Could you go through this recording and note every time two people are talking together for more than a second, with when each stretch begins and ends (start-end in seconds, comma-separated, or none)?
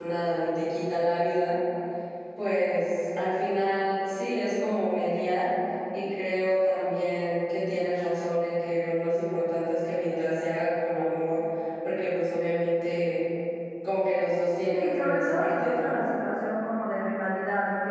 14.7-16.0